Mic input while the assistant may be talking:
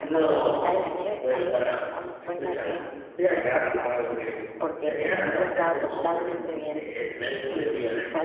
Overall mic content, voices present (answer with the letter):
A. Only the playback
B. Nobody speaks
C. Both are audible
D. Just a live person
C